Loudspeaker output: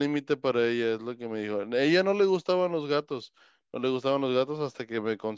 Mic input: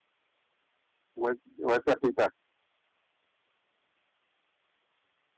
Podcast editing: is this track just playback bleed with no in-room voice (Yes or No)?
No